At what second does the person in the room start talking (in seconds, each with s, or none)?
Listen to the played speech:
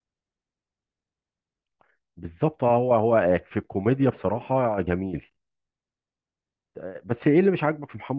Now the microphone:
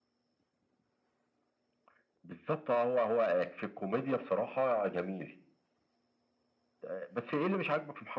none